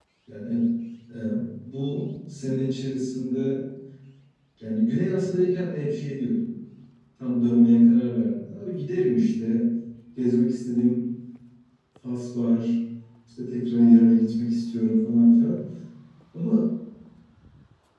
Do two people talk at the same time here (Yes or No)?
No